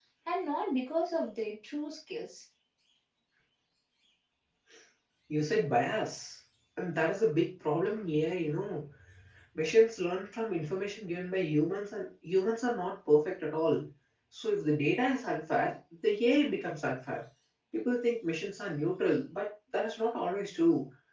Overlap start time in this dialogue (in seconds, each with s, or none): none